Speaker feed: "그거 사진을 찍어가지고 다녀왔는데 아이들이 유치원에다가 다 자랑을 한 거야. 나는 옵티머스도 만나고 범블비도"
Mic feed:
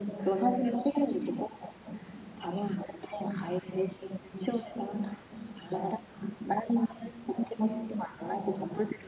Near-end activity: none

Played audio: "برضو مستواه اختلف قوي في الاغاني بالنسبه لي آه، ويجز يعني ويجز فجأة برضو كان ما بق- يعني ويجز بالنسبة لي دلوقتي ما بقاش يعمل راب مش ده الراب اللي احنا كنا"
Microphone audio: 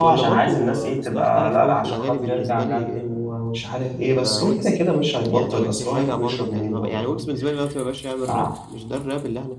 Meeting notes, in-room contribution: present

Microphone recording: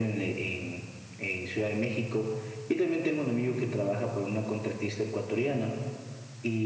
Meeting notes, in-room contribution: none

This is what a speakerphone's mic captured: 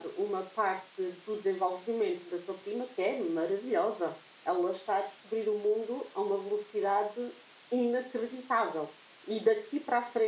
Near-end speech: present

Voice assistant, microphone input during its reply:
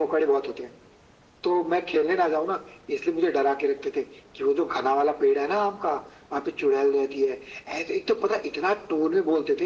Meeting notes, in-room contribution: none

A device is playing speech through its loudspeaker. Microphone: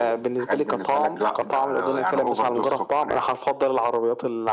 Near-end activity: none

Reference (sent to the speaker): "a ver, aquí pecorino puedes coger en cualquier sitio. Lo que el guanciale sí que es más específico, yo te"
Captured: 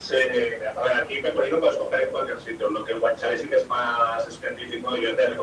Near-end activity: none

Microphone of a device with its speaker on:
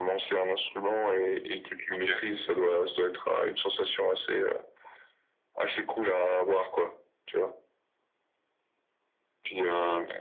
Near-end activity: present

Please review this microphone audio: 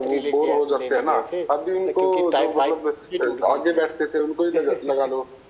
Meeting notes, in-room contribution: none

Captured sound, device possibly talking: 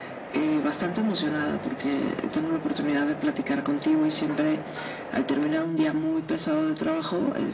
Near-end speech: none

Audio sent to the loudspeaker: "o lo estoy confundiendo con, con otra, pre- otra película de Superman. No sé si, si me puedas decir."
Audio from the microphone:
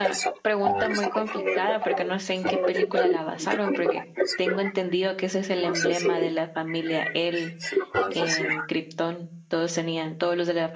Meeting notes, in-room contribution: present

